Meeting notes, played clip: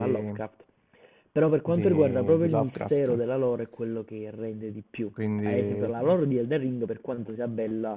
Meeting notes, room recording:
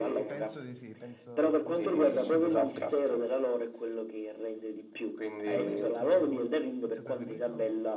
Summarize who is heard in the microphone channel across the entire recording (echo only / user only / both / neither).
both